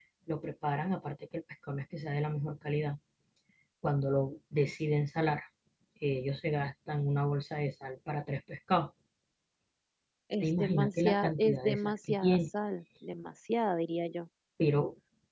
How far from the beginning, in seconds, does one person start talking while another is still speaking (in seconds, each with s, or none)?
10.4 s